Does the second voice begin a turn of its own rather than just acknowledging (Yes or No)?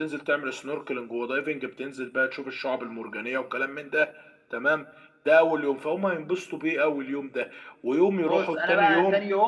Yes